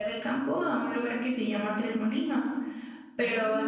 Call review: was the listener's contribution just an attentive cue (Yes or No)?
Yes